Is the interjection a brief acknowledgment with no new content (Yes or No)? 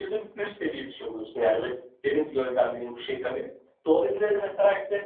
Yes